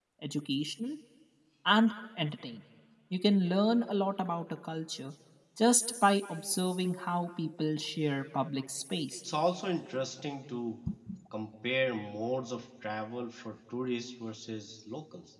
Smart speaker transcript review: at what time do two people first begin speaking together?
none

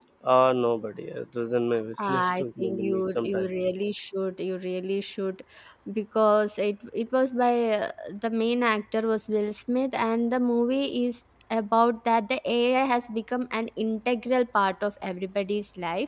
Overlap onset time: 2 s

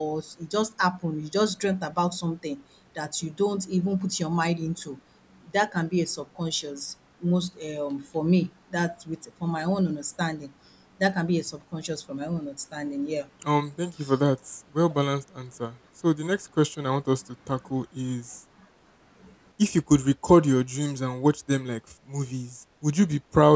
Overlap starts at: none

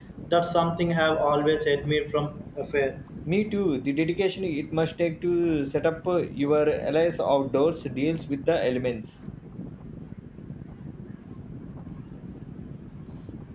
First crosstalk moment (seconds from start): none

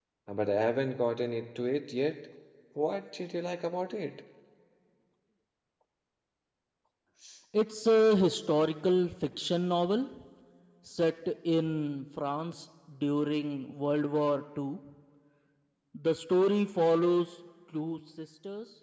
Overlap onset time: none

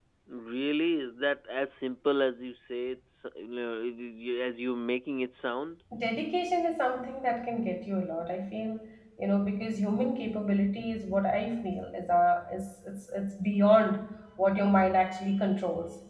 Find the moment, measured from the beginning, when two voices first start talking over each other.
none

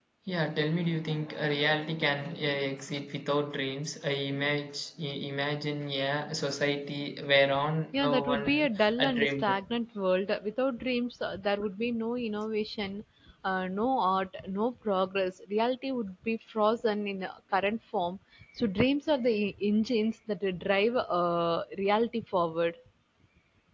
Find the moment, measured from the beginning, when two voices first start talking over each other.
8 s

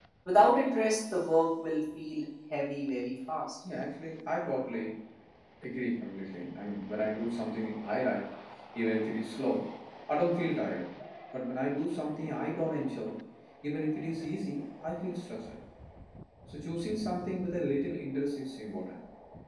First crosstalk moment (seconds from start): none

